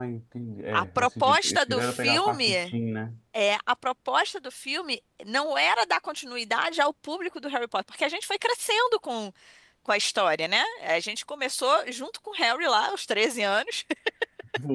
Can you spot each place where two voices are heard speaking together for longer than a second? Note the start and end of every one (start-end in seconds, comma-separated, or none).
0.7-2.7